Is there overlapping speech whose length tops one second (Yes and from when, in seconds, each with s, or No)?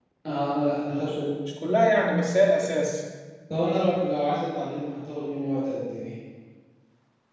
No